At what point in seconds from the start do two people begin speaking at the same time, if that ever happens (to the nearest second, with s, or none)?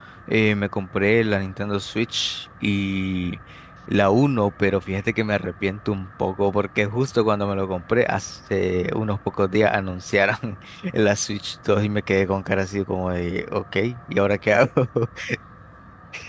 none